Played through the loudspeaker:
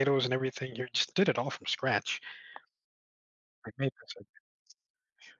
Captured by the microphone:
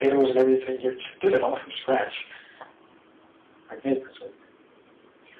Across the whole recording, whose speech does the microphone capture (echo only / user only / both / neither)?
echo only